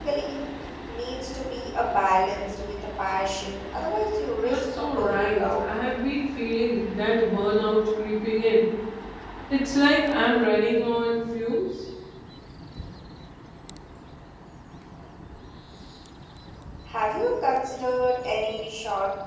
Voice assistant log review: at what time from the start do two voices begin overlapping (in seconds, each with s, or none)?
4.4 s